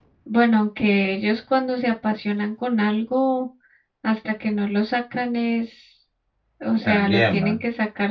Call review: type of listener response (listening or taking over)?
listening